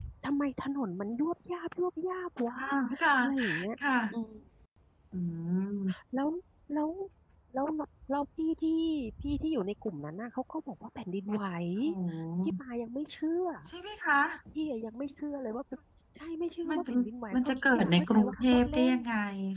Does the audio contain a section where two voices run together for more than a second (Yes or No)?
Yes